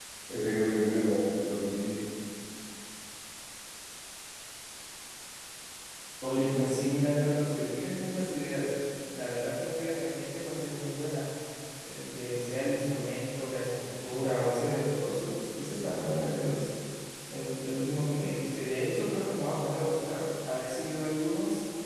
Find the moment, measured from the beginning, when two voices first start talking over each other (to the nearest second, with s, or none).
none